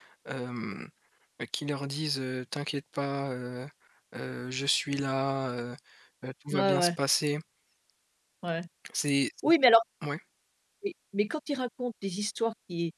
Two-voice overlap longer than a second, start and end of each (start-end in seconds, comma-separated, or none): none